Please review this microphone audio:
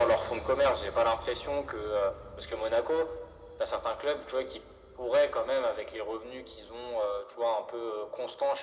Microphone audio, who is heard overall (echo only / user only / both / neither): echo only